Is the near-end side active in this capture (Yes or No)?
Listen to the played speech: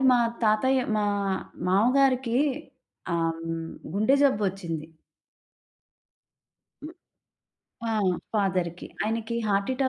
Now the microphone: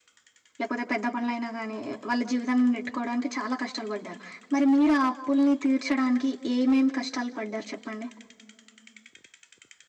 Yes